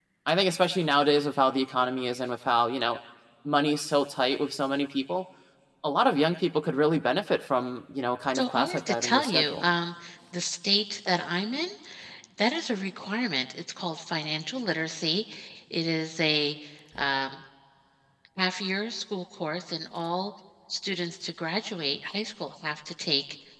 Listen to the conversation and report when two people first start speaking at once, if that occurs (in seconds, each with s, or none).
8.3 s